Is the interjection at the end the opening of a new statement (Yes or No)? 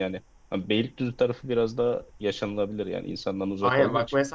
Yes